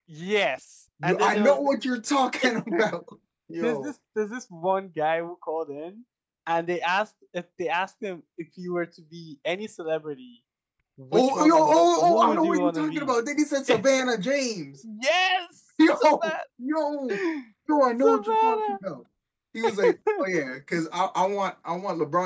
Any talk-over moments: Yes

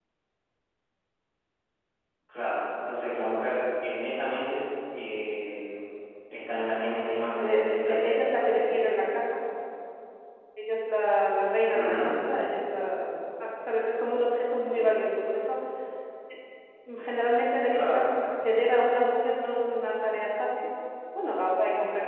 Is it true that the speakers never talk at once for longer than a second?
No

